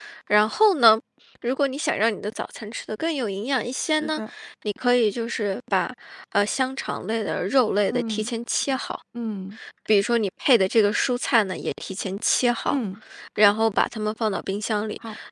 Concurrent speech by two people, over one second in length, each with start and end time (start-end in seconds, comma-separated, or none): none